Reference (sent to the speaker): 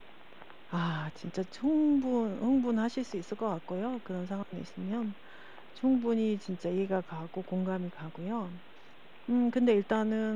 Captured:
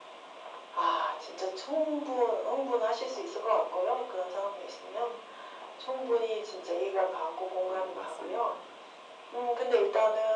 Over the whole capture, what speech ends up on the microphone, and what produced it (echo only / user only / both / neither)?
both